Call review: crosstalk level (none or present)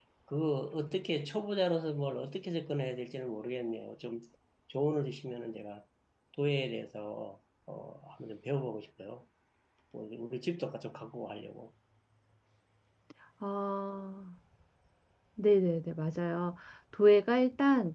none